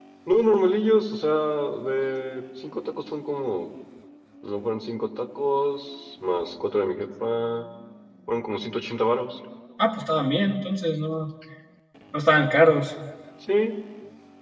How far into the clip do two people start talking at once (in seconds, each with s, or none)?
none